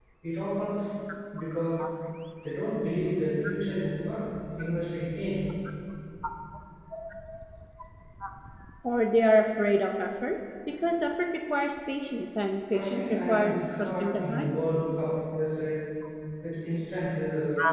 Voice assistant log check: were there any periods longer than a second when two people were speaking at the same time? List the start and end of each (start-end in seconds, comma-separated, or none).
12.7-14.6